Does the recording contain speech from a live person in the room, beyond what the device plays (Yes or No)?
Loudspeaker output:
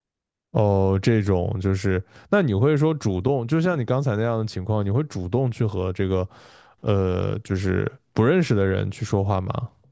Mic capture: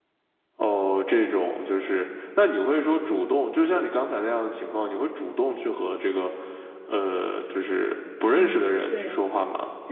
Yes